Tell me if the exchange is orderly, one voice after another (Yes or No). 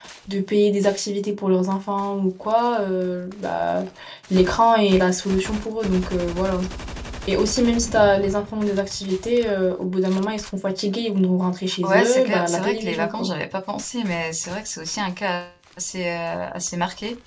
No